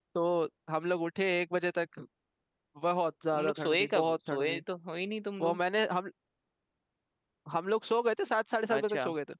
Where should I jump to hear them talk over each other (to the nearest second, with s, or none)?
3 s